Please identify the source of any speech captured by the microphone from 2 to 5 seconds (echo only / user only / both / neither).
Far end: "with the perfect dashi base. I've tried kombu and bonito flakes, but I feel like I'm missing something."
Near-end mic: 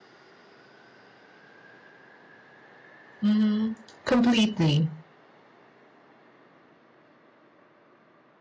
user only